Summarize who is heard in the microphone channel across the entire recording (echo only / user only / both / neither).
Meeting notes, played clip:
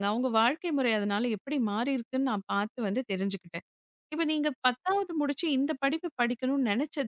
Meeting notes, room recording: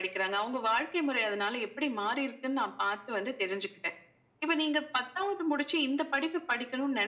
echo only